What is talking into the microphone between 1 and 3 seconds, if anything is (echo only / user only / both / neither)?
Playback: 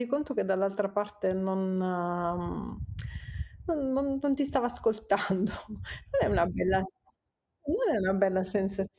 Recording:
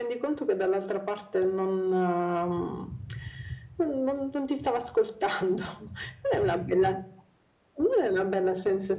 echo only